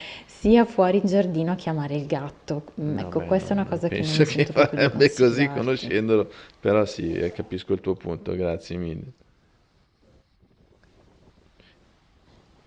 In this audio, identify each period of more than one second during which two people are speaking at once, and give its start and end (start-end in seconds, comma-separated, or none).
2.8-5.9